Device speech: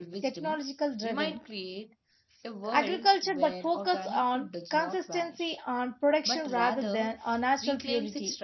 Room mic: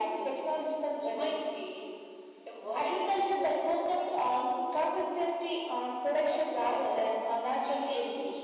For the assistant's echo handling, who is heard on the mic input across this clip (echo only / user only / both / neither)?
echo only